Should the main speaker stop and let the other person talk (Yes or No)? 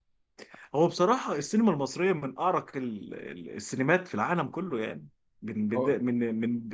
No